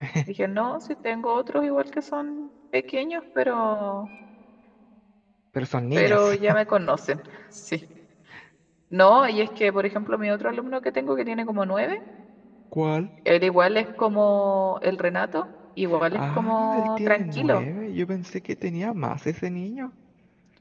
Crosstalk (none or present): present